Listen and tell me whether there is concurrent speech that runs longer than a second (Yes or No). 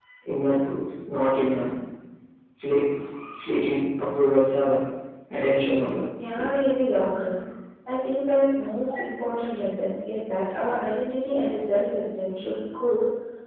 No